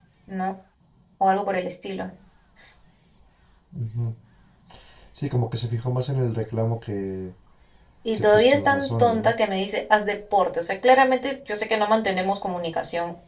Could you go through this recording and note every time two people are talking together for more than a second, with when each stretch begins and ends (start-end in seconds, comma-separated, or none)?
8.1-9.3